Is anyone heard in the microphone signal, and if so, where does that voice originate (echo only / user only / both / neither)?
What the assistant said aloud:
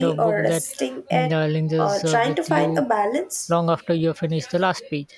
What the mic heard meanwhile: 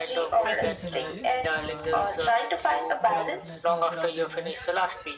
both